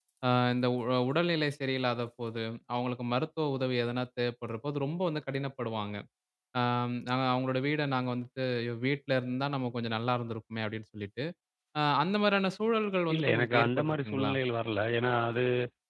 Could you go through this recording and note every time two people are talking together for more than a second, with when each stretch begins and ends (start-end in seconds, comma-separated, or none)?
13.1-14.3